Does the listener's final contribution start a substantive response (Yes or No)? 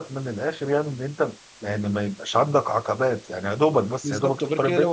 Yes